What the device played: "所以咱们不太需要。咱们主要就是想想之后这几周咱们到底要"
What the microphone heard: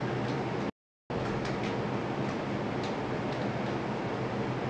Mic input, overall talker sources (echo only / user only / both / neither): neither